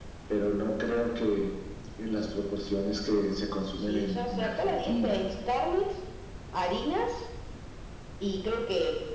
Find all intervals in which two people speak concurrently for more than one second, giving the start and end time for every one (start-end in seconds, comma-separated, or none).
3.8-5.2